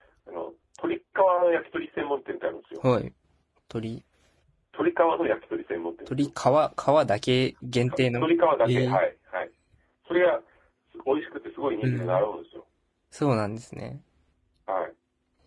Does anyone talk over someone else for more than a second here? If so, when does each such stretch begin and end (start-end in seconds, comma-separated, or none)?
none